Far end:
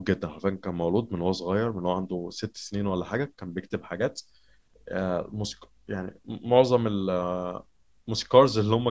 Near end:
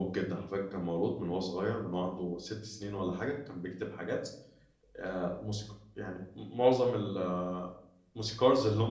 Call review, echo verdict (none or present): present